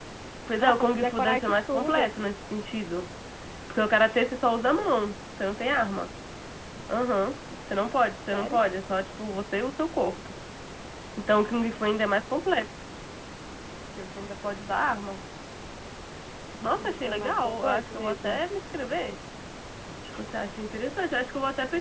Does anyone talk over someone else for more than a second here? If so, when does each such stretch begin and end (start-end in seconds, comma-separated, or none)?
0.6-2.1, 16.8-18.4